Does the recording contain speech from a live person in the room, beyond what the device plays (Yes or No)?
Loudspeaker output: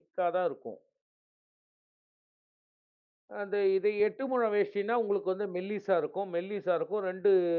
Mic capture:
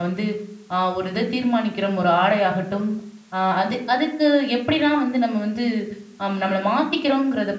Yes